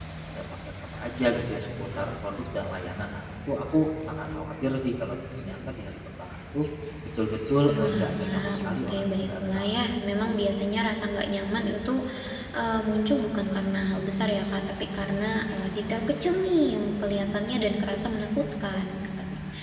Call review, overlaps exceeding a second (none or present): present